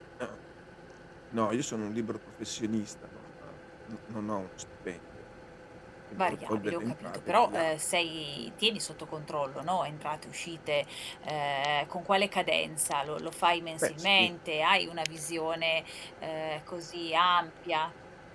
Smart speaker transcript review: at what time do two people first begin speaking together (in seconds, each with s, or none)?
6.2 s